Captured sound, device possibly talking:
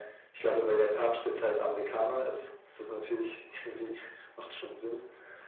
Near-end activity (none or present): none